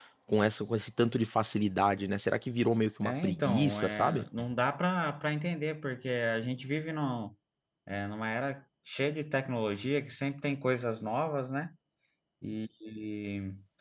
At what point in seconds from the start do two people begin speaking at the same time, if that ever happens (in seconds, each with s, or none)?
3.0 s